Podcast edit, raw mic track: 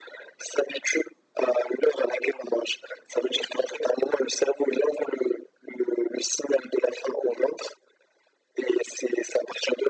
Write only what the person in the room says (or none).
none